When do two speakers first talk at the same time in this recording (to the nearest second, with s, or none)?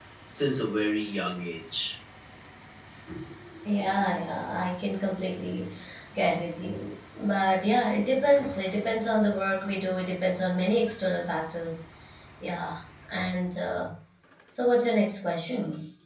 none